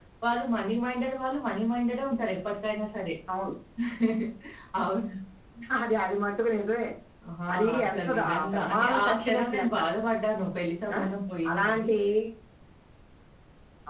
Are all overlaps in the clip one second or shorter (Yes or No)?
No